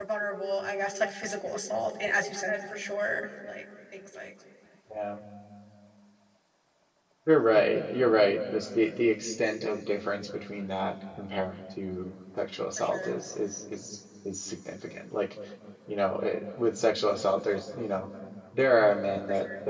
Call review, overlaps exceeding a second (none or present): none